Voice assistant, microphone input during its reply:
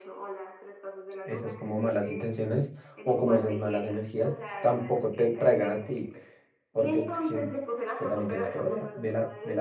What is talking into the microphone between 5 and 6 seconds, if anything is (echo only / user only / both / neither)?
both